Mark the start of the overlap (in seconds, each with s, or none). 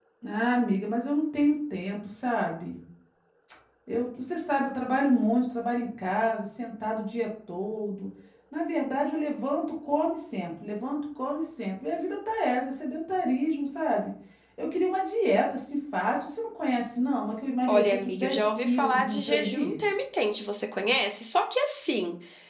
17.7 s